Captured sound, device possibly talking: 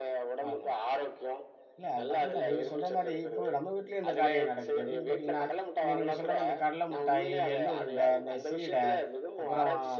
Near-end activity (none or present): present